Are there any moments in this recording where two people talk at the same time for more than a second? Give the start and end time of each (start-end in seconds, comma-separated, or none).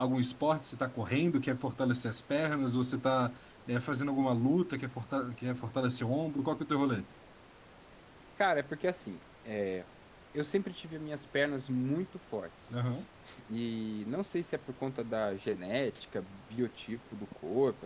none